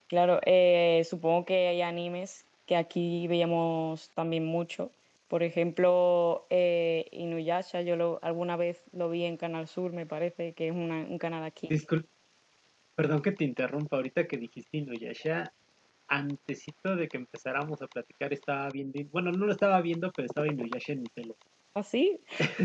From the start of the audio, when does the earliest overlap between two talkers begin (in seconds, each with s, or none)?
none